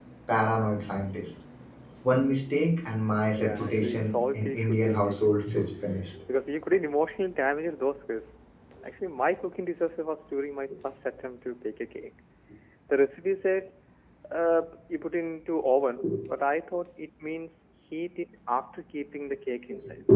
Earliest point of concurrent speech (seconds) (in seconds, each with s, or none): 3.4 s